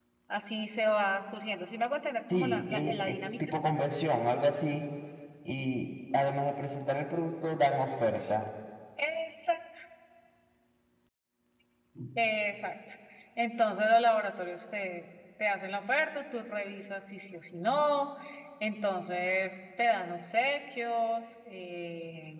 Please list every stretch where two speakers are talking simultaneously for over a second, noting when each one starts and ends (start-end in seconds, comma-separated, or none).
2.3-3.5